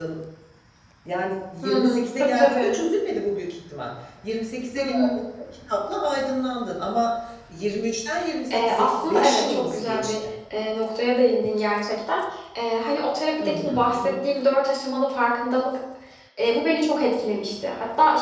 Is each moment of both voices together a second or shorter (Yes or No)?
No